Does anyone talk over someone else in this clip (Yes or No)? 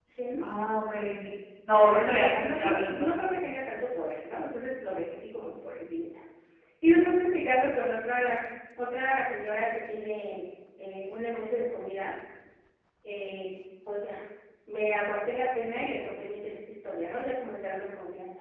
Yes